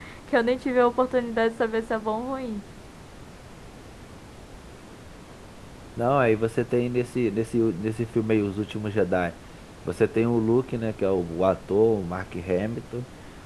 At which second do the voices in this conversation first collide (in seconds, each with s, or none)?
none